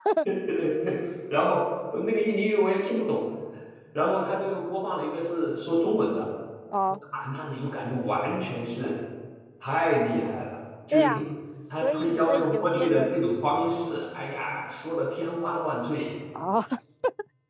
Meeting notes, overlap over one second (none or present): present